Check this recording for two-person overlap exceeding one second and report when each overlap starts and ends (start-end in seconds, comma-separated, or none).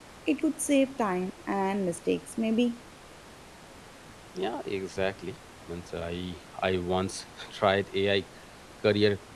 none